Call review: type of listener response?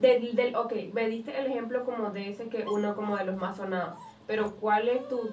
listening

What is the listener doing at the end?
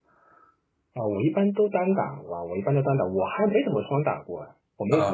taking over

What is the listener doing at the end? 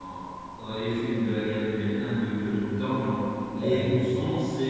listening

